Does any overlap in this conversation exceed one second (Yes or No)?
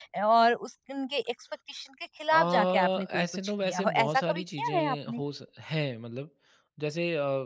Yes